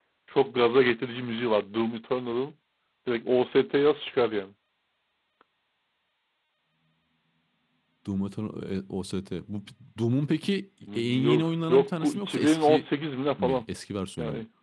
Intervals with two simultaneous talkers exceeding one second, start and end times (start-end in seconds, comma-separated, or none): 10.9-12.8